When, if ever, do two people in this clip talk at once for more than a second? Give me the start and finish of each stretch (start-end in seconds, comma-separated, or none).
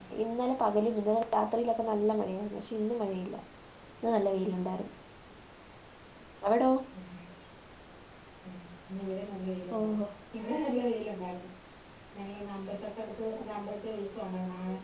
none